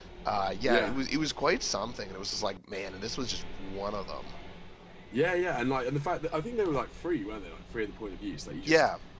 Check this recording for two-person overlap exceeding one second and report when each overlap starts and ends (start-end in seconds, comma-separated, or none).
none